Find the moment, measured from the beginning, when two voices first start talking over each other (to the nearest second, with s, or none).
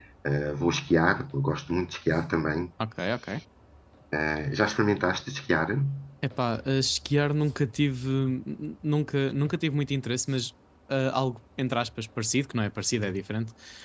none